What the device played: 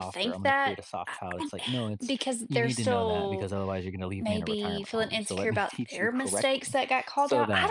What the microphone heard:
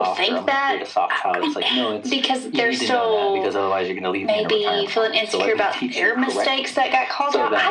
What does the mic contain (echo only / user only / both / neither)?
echo only